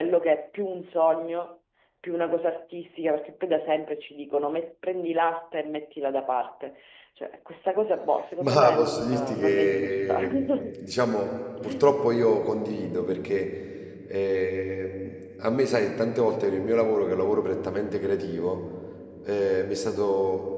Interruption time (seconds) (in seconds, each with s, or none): 8.4 s